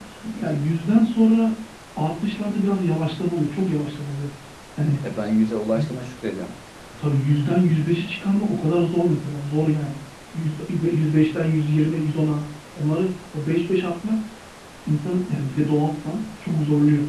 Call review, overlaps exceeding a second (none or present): none